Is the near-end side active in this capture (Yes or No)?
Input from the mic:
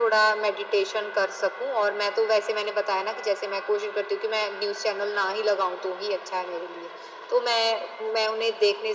No